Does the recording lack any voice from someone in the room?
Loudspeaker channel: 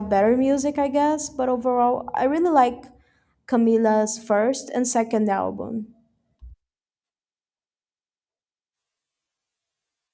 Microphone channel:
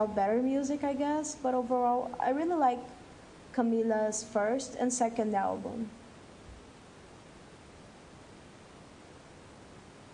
Yes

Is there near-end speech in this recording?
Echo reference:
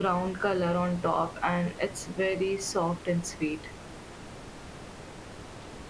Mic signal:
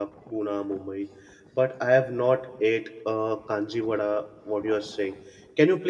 Yes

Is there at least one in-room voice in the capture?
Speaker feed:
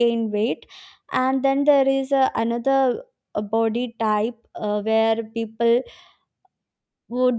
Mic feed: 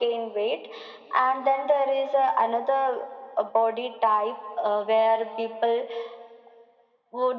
No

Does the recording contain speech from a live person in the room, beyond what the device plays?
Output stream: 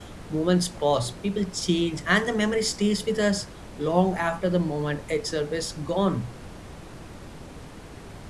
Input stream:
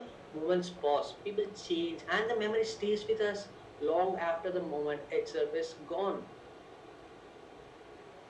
No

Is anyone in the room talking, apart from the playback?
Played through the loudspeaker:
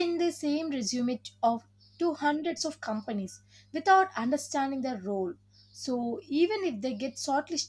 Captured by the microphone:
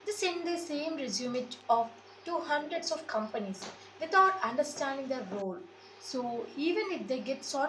No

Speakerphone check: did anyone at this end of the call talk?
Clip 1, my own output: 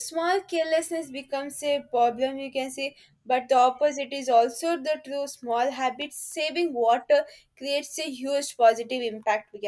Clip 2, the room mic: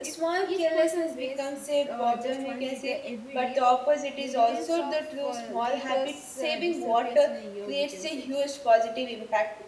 Yes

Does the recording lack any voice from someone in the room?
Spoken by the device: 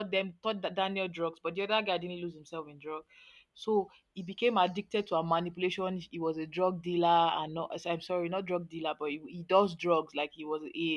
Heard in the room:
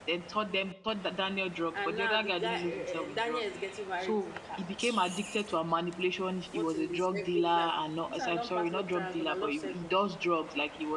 No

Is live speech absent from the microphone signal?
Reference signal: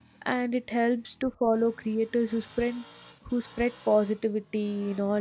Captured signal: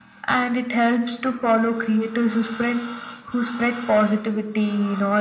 Yes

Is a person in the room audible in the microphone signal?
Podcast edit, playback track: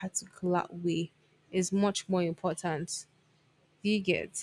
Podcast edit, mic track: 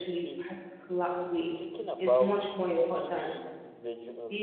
Yes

